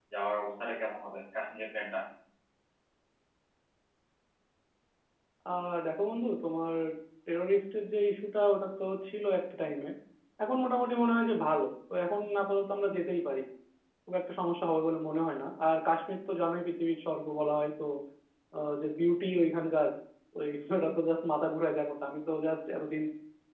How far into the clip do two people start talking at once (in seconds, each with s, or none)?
none